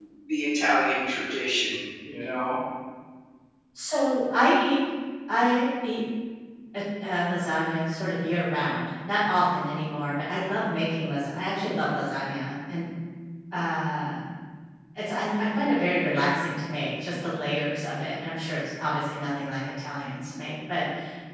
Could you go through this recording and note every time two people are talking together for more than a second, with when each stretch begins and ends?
none

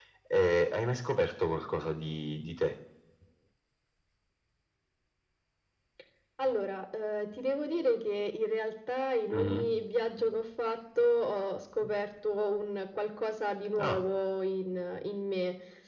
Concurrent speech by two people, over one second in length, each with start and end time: none

